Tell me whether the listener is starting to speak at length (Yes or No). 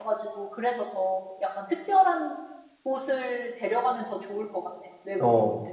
Yes